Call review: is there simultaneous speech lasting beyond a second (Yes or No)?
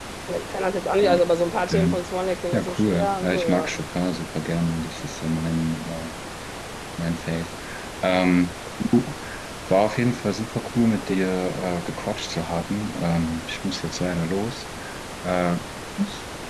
Yes